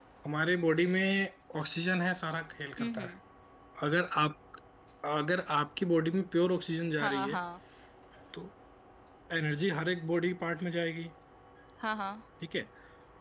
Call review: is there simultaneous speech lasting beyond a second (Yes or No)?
No